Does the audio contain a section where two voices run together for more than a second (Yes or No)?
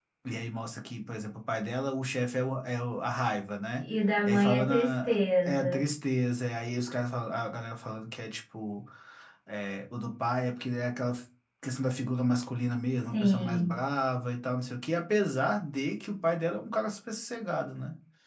Yes